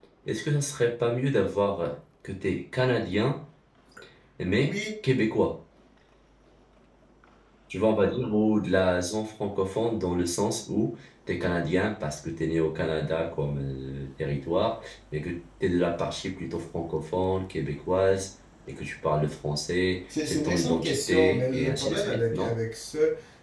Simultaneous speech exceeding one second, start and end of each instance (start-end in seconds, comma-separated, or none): 20.2-22.5